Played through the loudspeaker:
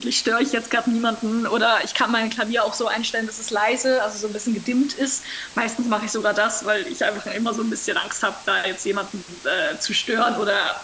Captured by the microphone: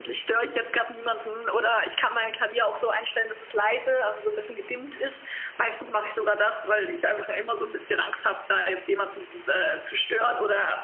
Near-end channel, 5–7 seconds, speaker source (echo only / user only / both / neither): echo only